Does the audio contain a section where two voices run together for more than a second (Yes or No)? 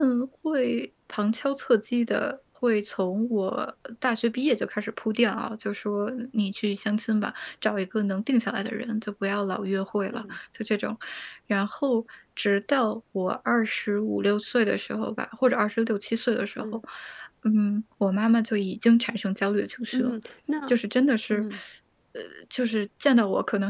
No